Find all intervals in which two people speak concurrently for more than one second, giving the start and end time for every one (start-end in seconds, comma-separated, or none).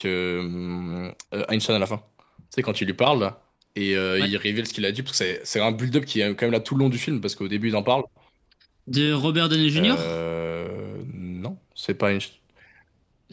none